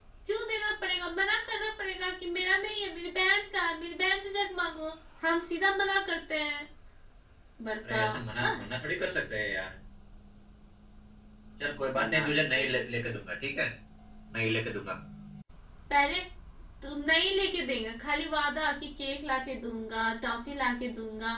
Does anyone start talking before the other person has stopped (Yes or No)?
Yes